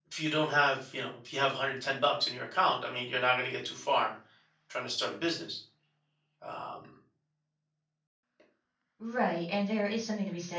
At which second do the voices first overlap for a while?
none

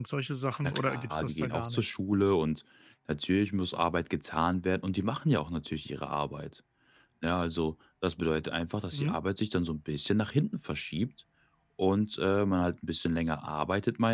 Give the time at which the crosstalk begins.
1 s

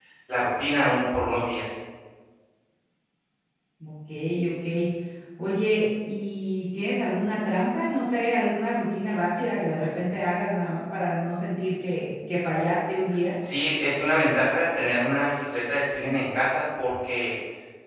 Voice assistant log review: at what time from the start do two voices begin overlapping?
none

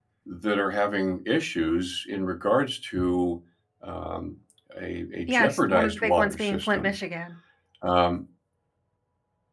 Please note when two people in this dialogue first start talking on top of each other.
5 s

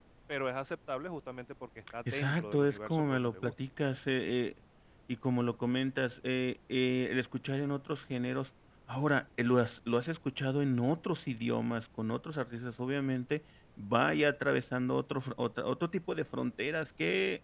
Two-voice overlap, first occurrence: 2 s

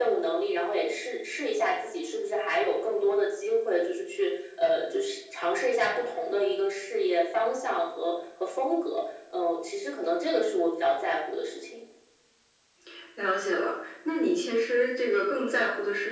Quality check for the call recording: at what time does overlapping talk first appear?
none

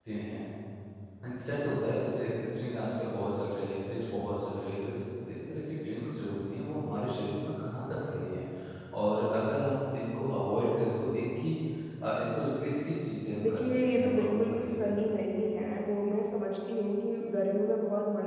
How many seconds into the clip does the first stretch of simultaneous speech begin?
13 s

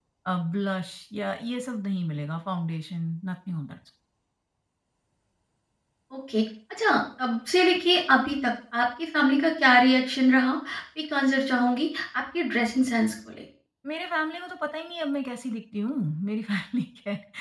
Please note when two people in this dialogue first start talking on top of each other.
none

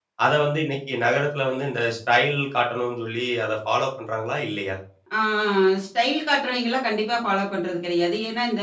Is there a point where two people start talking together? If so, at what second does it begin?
none

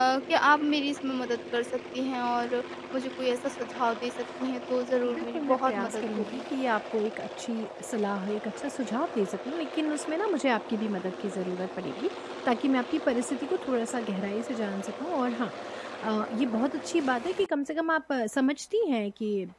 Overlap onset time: 5 s

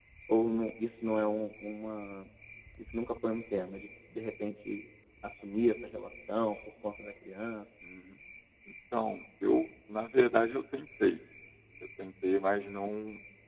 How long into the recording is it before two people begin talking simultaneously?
none

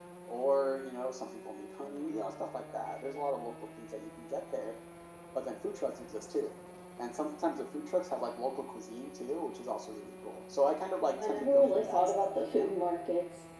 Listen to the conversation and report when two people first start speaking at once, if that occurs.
11 s

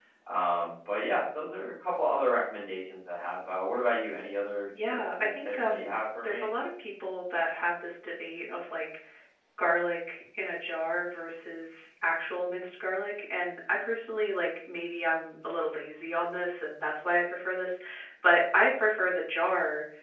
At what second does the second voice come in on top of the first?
5 s

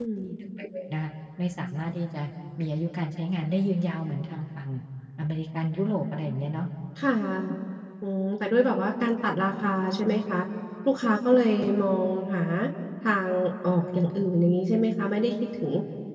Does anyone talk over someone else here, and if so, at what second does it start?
none

